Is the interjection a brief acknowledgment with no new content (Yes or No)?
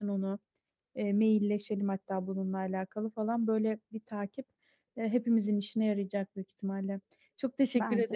Yes